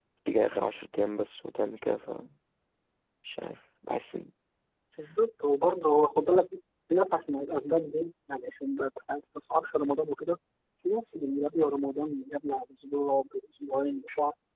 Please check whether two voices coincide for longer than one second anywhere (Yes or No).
No